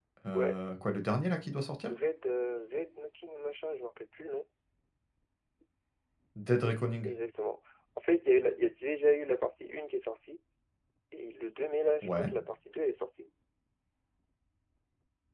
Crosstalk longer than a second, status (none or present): none